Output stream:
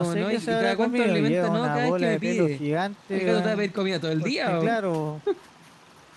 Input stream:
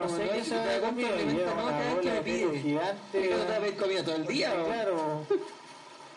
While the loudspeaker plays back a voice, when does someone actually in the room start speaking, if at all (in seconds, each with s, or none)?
none